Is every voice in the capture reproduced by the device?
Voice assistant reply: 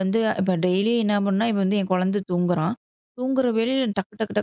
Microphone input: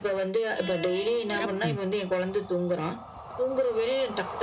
No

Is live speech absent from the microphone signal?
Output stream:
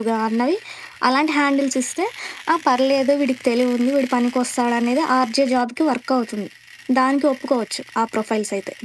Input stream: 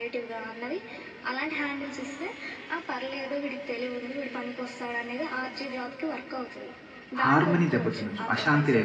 No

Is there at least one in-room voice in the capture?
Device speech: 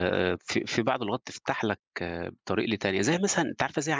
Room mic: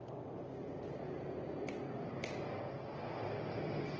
No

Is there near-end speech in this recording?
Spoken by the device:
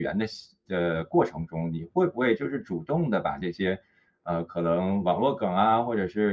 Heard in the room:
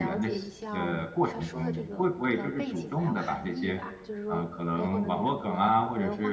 Yes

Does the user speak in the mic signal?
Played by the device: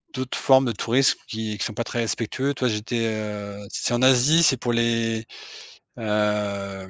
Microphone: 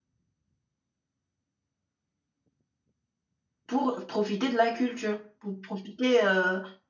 Yes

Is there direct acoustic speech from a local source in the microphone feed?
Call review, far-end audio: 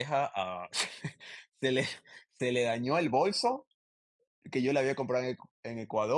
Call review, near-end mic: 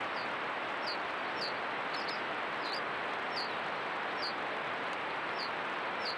No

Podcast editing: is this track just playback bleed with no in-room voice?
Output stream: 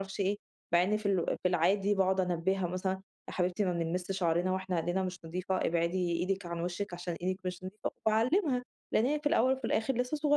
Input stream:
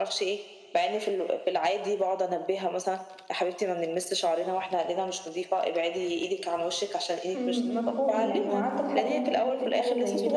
No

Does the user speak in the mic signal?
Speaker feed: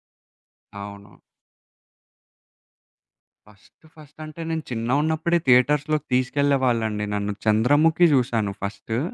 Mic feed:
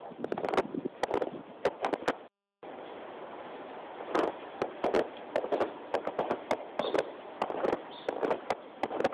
No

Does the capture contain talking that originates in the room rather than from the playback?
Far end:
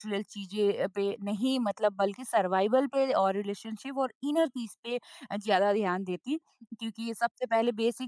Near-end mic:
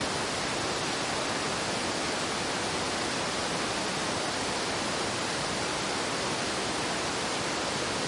No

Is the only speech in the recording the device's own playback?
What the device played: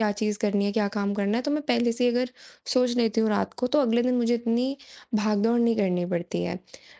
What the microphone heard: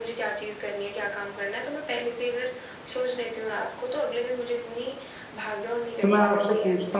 No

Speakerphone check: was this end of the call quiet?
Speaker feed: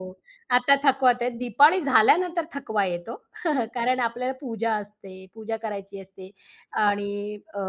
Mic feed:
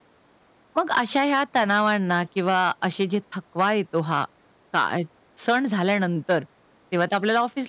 No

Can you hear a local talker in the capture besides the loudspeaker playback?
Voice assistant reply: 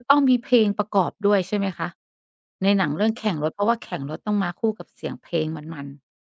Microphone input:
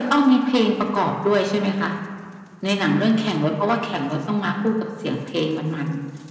No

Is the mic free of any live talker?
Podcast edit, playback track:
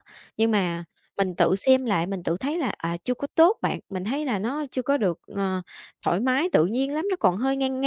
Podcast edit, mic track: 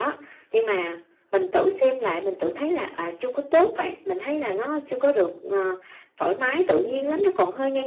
No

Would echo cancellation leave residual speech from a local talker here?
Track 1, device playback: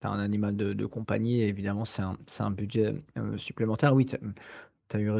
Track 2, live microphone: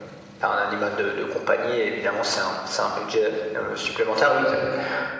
No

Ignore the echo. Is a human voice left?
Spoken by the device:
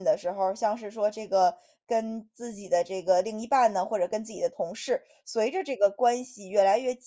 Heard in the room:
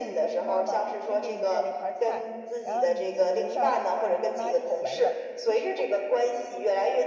Yes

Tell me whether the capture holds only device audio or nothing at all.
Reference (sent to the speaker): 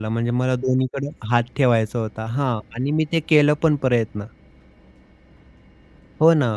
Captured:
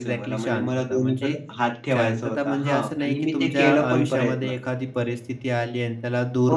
No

